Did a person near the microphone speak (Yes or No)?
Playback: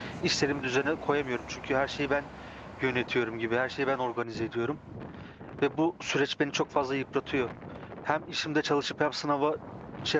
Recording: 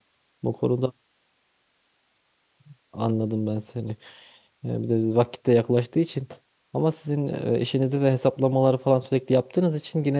Yes